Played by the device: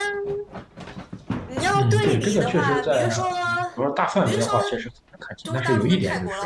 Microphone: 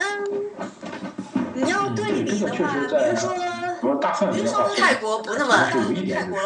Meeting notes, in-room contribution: present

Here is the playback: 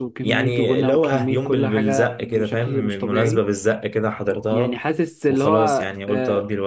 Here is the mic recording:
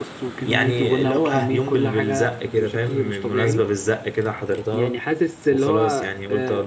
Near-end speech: none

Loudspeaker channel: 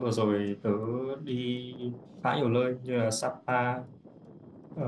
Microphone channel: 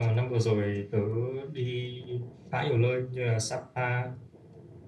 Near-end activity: none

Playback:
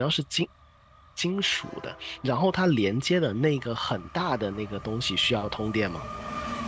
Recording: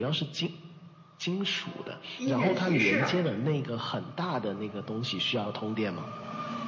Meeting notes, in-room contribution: present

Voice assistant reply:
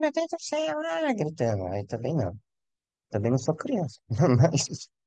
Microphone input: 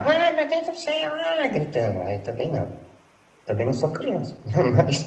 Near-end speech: none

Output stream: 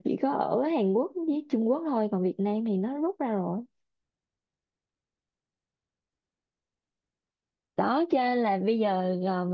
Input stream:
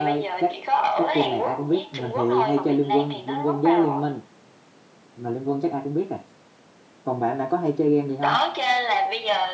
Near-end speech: present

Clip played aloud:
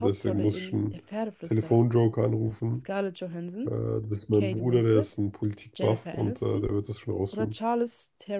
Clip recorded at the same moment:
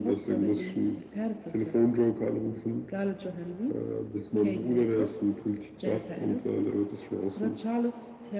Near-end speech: none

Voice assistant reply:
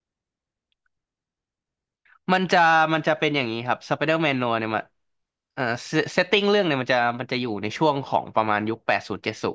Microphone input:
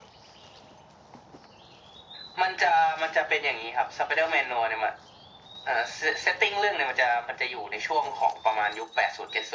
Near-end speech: none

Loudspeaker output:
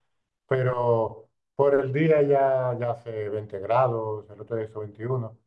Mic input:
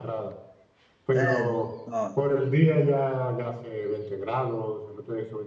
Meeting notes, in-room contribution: present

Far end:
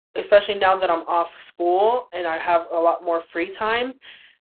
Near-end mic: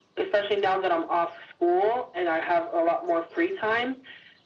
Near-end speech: none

